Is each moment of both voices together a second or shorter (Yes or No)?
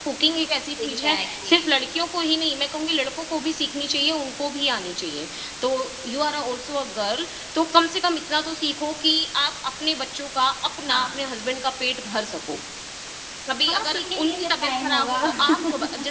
No